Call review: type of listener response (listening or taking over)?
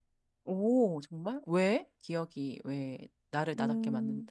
taking over